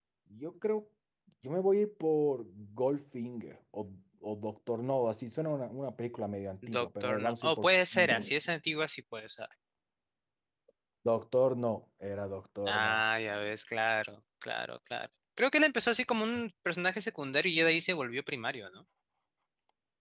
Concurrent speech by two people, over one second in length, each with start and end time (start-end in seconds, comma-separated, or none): 6.7-8.4